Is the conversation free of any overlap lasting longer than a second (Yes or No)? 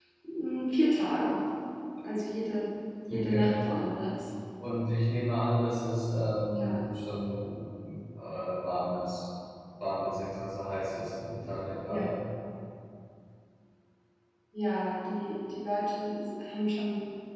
Yes